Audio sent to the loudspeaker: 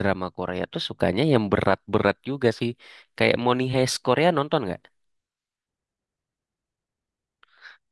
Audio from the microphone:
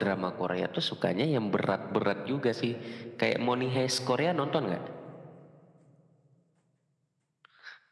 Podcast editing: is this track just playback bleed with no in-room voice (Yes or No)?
Yes